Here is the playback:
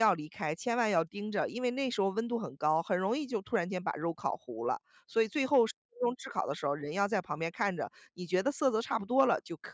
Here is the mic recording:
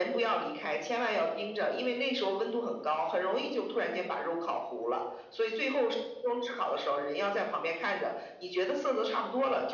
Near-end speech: none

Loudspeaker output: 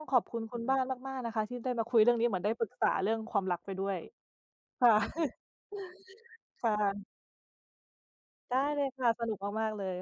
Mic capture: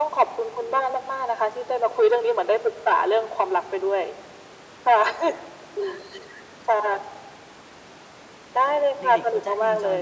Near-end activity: present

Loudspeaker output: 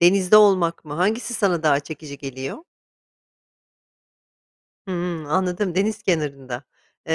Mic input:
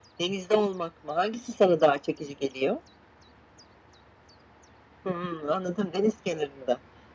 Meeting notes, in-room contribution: none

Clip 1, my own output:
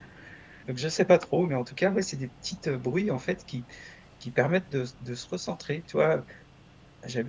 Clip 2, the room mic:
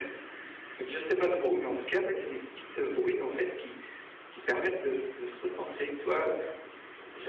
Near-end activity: none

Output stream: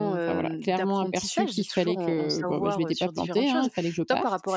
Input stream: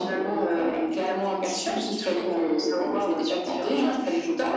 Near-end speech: none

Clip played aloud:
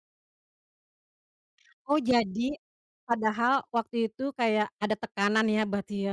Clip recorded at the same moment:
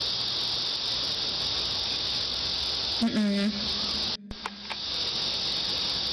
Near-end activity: present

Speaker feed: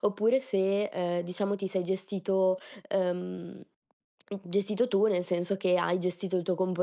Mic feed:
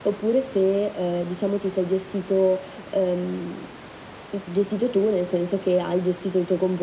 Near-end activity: none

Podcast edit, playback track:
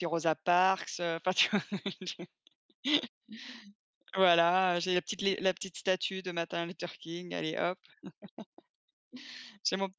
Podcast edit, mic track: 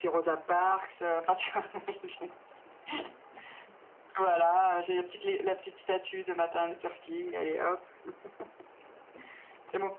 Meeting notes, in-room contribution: none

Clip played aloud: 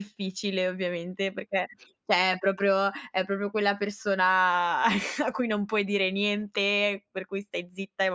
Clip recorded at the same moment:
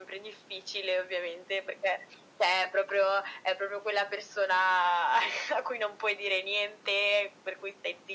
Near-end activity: none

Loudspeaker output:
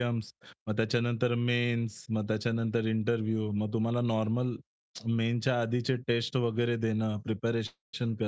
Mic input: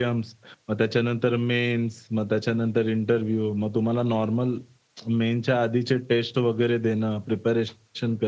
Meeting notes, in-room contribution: none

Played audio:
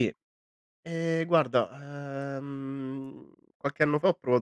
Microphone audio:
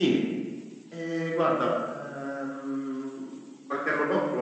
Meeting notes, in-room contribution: none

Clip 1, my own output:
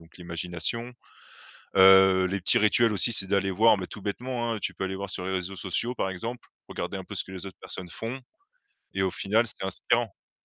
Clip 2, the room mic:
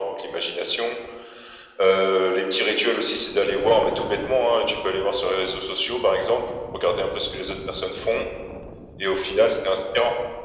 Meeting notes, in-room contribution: none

